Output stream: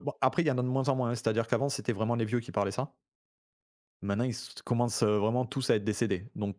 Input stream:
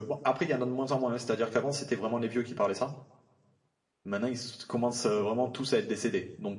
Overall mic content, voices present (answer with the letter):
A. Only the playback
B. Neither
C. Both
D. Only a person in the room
A